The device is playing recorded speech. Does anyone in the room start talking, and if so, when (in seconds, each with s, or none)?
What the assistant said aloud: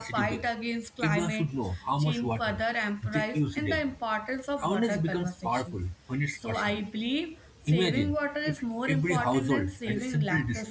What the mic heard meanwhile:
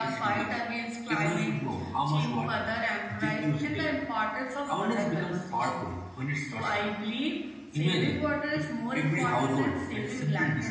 none